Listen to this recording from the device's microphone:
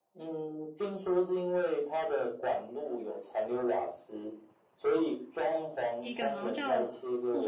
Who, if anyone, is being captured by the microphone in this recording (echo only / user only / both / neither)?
both